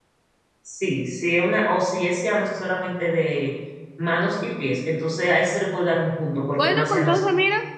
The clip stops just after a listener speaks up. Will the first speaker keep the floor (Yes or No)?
No